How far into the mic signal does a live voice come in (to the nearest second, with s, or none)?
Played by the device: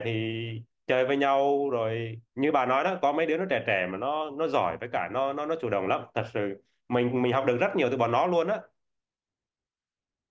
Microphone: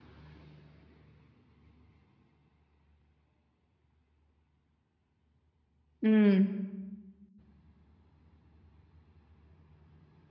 6 s